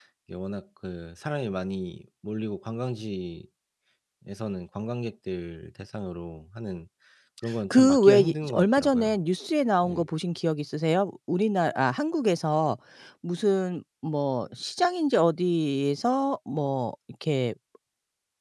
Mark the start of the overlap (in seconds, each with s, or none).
7.7 s